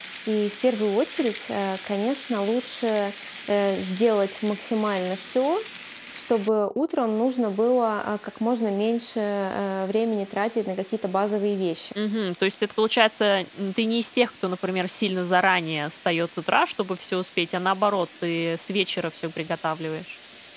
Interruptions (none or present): none